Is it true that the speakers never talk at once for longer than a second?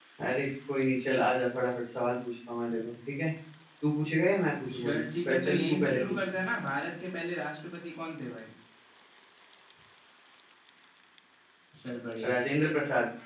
No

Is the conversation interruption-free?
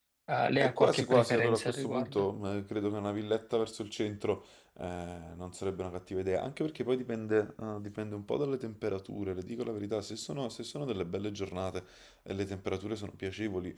No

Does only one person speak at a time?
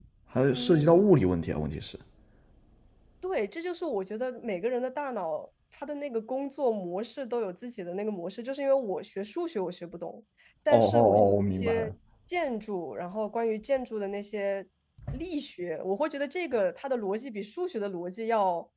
No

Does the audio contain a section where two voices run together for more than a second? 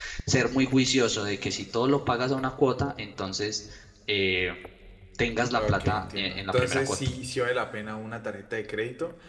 Yes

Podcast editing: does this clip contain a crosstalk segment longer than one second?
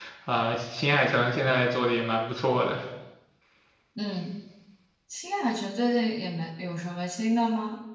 No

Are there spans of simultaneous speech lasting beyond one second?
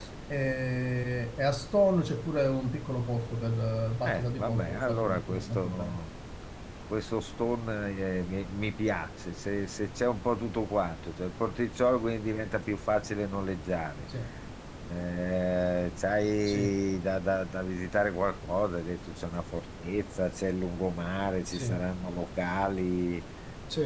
Yes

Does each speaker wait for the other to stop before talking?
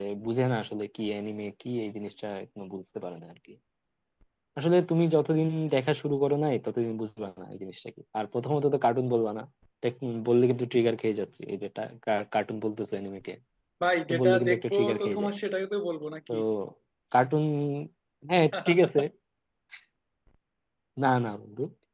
No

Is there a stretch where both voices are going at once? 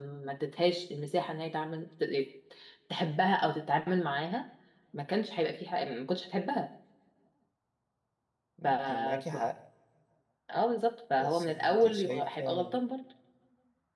Yes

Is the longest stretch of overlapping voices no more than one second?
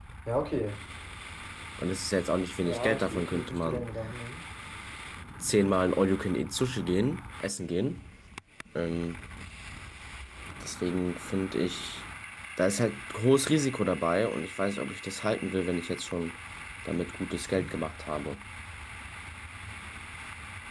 No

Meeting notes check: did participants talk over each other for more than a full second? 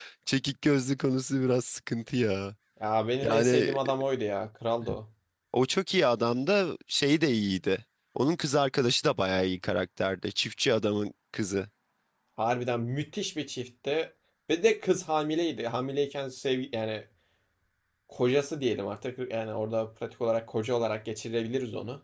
No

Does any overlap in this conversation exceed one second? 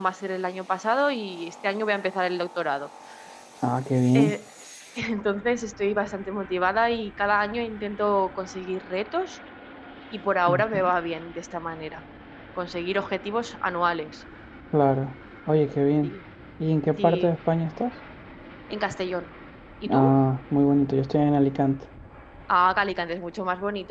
No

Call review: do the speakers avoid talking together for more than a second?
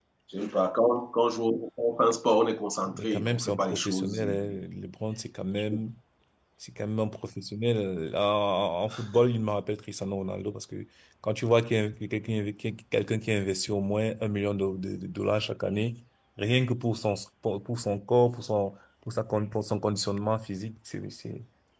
No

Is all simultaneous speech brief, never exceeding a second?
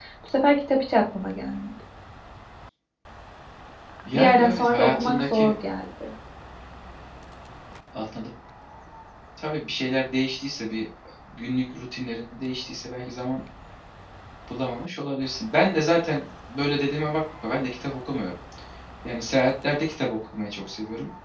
No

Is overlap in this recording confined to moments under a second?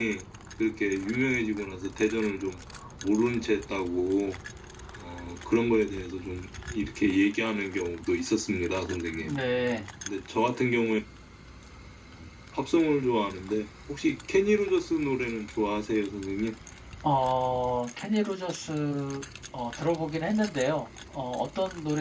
Yes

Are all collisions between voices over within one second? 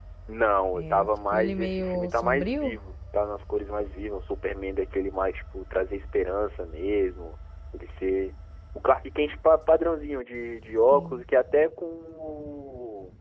No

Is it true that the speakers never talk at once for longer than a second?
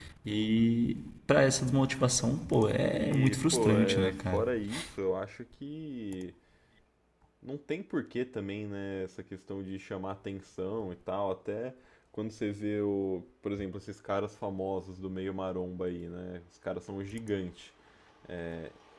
No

